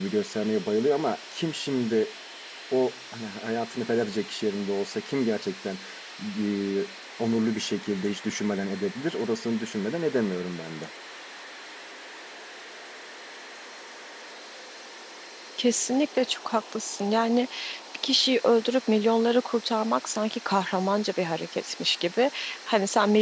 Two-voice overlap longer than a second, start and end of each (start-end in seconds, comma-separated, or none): none